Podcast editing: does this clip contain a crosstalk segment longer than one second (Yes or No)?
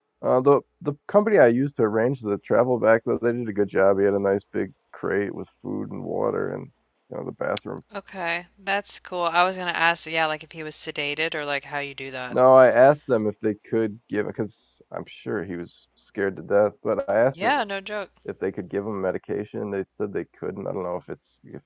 No